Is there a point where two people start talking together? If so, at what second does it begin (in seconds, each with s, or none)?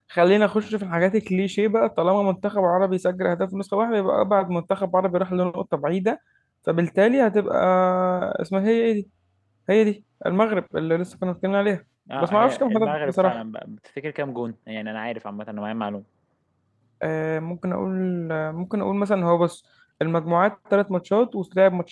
12.1 s